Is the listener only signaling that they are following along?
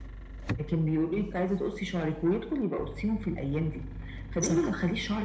Yes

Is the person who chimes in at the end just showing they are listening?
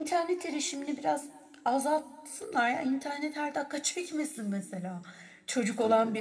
Yes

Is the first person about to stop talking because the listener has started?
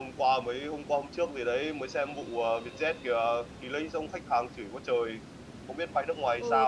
Yes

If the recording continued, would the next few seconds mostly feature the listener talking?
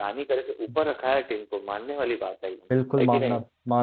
Yes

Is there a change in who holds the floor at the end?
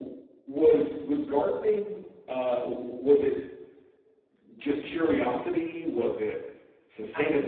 No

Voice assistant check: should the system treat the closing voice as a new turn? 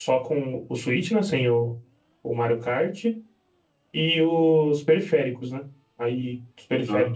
No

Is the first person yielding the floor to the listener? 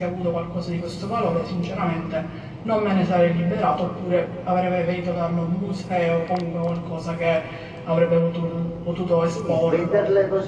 Yes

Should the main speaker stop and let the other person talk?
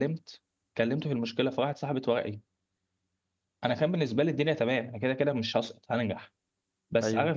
No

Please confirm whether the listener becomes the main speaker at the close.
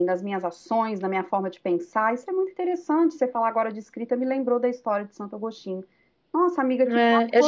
Yes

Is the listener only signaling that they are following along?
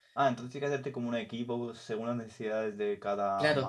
No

